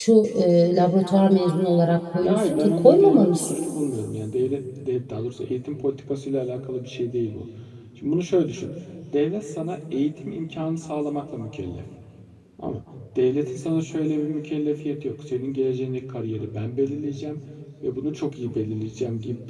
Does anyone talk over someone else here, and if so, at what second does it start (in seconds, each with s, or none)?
2.2 s